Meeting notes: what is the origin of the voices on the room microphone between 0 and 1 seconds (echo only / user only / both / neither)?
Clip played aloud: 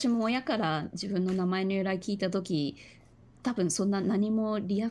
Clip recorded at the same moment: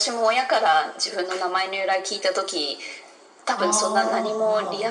echo only